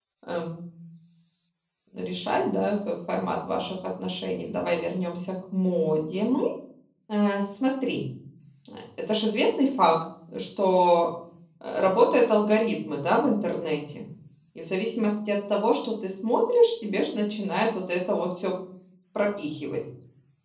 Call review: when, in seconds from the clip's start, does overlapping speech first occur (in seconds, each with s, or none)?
none